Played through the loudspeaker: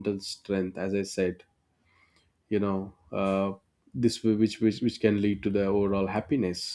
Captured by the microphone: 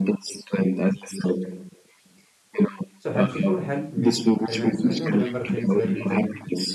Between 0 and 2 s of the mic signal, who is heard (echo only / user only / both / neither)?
echo only